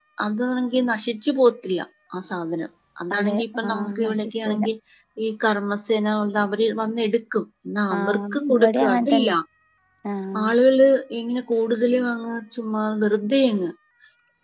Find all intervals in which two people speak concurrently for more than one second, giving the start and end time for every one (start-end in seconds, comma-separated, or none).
3.1-4.6, 8.0-9.3